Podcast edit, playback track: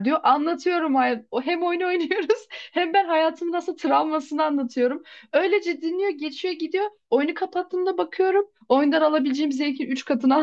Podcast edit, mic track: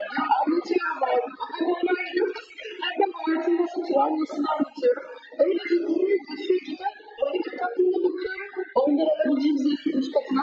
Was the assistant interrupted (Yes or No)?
No